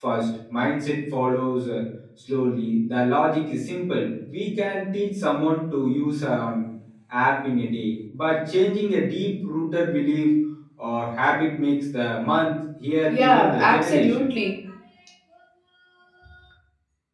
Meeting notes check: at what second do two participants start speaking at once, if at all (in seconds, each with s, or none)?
13.1 s